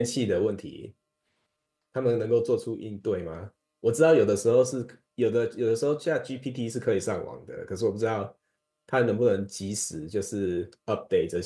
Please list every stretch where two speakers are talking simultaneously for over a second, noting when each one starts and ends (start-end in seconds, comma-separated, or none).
none